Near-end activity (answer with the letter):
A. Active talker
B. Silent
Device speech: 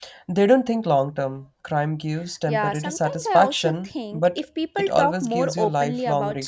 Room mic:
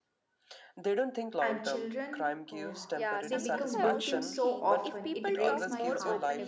A